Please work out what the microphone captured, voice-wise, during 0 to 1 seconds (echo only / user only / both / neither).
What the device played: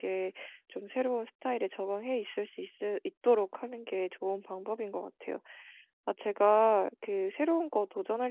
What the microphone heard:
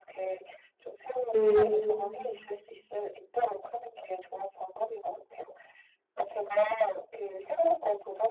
echo only